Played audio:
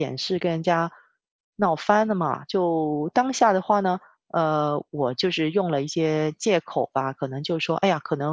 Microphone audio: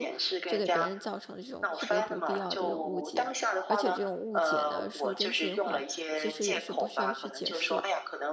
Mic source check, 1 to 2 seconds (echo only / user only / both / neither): both